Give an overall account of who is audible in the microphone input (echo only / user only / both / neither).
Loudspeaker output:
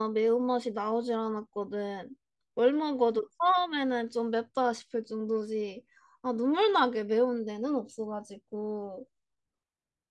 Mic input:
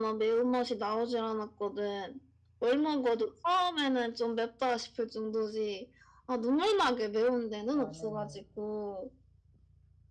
both